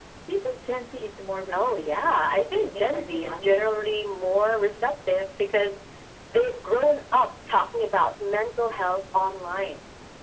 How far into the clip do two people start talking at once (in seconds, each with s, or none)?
1.5 s